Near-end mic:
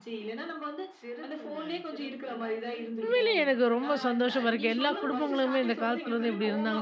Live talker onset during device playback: 3.0 s

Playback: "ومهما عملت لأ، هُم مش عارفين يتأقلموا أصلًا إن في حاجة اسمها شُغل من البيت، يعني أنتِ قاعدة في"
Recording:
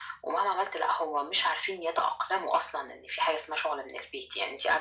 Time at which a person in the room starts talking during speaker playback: none

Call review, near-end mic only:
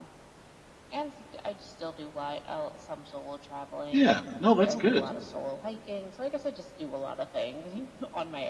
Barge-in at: 3.9 s

